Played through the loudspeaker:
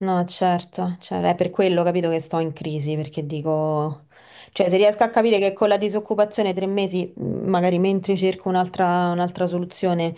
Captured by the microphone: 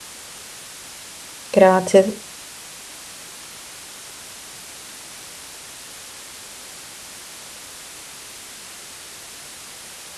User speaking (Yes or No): Yes